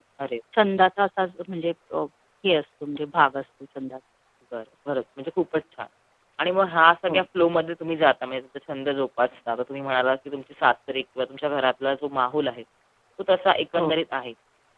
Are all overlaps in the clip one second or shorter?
Yes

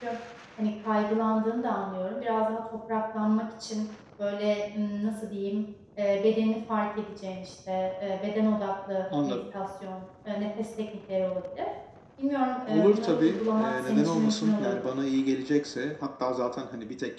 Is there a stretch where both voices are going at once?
Yes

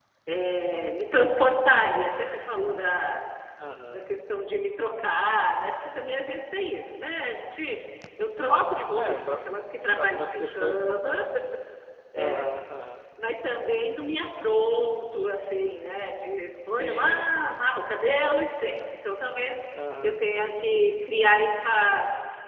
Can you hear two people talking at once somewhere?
Yes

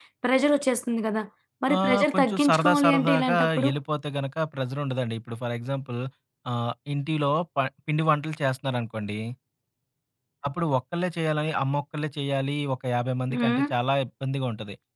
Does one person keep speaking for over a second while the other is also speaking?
Yes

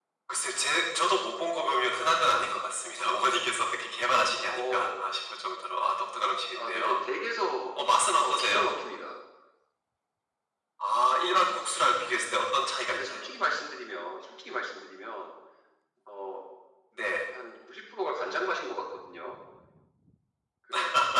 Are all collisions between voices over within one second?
Yes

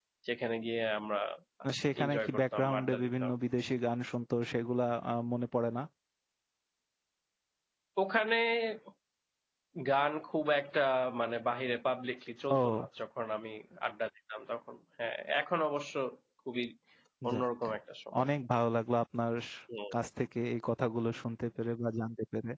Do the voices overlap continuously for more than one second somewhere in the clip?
Yes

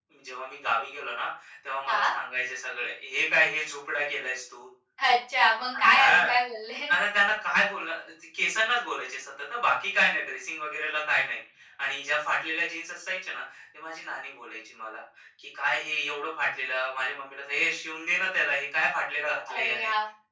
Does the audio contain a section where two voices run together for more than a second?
No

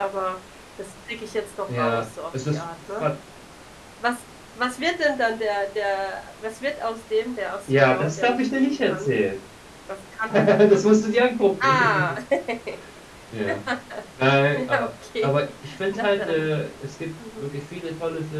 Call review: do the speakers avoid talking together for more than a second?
No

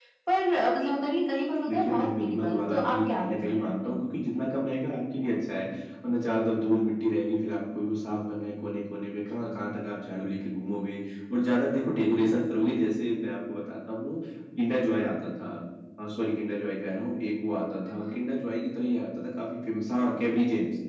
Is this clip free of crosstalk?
No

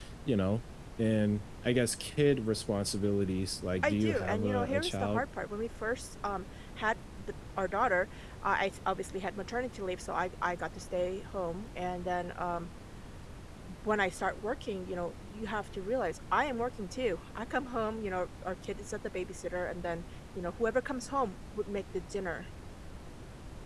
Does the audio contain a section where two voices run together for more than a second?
Yes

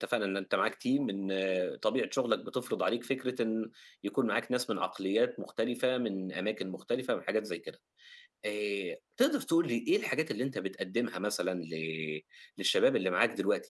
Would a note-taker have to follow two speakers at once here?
No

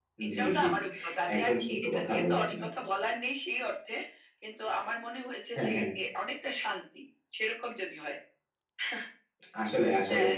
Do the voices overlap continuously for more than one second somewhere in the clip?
Yes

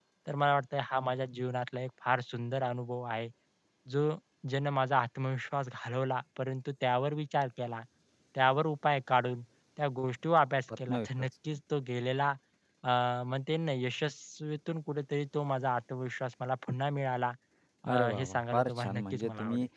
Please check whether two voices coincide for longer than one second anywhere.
Yes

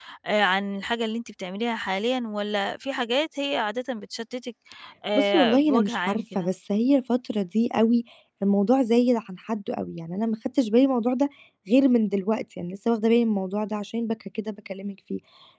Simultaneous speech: Yes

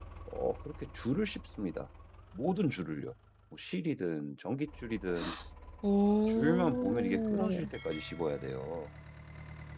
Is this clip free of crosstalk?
No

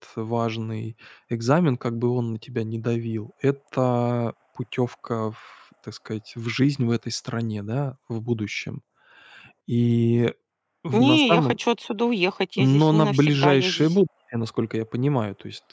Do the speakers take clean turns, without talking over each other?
No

